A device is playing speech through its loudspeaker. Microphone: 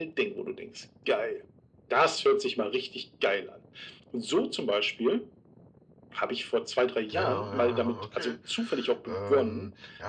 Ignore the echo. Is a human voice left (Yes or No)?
Yes